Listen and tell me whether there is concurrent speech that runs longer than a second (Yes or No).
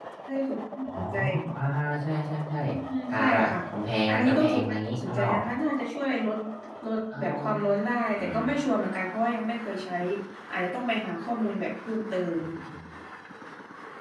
Yes